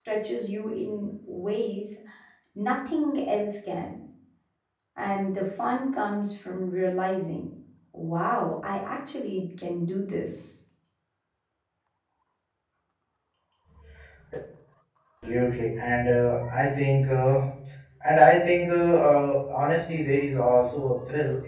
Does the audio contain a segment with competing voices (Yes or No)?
No